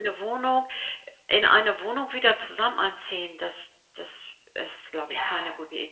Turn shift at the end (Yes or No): Yes